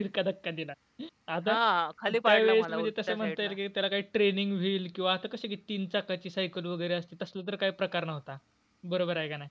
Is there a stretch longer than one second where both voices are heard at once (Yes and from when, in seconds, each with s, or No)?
Yes, from 2.3 s